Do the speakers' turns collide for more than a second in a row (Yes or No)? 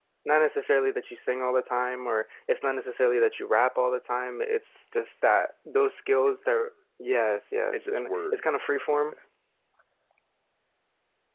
Yes